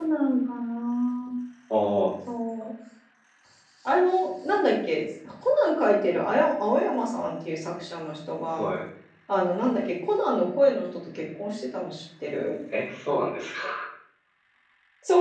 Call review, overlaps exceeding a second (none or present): none